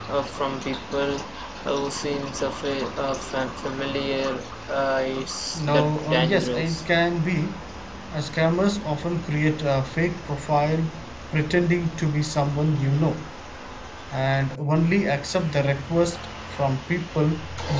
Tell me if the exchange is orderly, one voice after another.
No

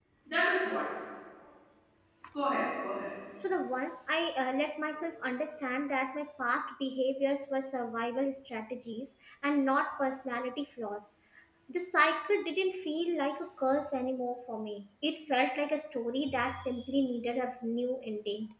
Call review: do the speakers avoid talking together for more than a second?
Yes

